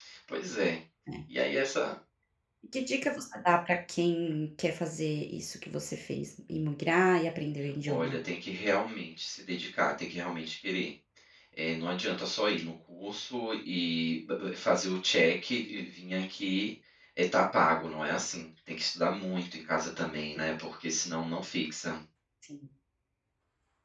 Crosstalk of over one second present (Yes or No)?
No